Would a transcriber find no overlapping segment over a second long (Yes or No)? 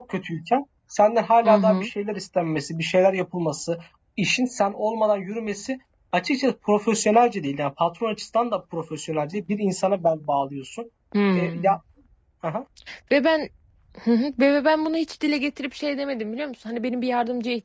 Yes